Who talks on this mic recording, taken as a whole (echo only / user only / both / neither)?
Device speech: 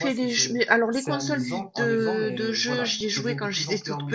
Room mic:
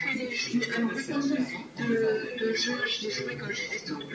both